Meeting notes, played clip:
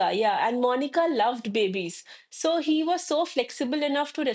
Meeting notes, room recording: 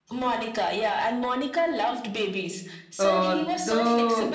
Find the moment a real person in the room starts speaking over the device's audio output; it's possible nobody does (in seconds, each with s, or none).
3.0 s